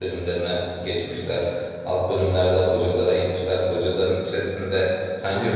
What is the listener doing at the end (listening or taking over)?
listening